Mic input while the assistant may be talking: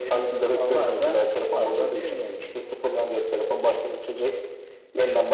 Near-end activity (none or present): none